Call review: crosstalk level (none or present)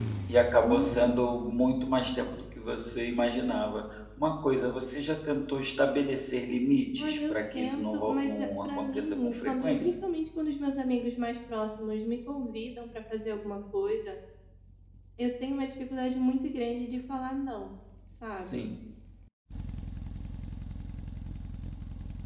present